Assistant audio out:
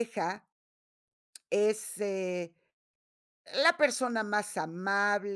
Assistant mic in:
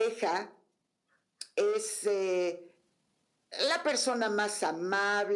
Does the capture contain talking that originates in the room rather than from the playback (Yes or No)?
No